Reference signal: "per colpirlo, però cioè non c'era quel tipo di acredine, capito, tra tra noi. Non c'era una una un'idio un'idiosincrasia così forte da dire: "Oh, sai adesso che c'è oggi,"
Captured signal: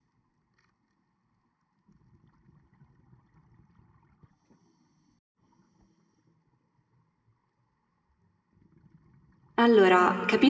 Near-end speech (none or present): present